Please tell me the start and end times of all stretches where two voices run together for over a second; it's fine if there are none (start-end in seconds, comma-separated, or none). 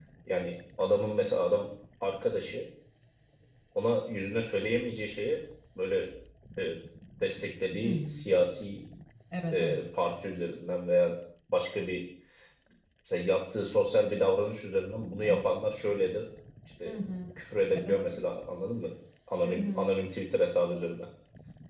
none